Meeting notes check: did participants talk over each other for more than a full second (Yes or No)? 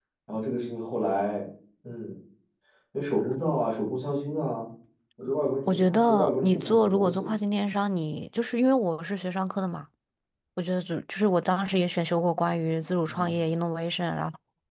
Yes